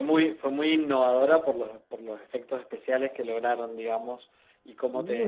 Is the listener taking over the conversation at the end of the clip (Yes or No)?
Yes